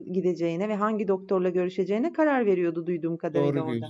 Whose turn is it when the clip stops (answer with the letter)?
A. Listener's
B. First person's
A